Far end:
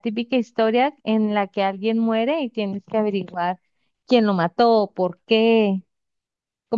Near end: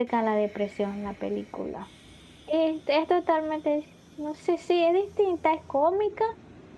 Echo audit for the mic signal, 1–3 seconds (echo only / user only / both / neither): user only